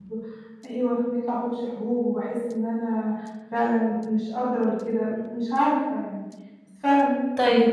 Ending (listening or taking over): taking over